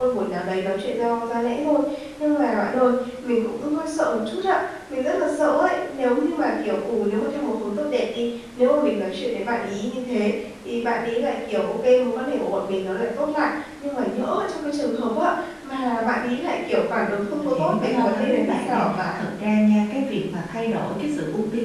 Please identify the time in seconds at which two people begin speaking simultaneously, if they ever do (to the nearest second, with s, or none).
17 s